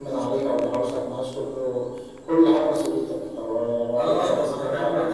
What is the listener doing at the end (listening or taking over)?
taking over